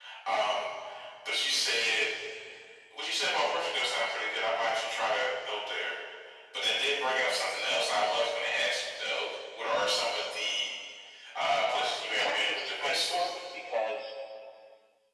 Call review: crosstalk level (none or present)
present